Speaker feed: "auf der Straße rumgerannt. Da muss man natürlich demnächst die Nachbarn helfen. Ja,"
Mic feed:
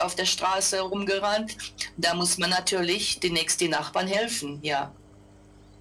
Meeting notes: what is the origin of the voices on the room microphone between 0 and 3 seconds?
echo only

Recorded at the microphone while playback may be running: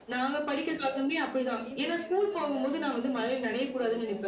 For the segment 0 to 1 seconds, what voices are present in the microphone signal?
echo only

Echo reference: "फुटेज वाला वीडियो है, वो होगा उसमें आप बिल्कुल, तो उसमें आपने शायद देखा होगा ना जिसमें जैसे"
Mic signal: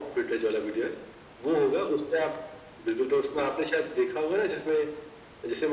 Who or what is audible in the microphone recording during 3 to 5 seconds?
echo only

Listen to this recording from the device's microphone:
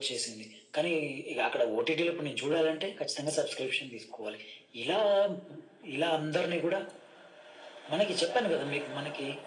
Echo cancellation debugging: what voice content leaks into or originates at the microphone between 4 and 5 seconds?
echo only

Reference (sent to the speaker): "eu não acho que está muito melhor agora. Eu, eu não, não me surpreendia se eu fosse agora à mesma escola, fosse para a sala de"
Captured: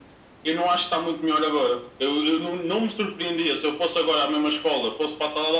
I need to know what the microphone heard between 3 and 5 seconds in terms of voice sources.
echo only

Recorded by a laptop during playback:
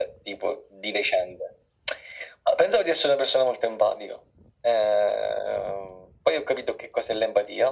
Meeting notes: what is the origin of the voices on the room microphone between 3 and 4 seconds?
echo only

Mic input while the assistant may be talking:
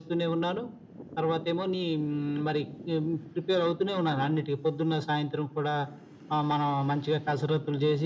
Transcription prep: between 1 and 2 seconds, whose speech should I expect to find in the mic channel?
echo only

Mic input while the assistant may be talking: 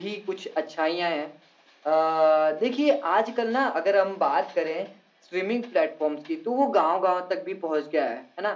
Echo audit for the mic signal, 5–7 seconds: echo only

